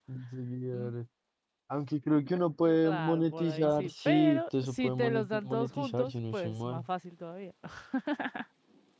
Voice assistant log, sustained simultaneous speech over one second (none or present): present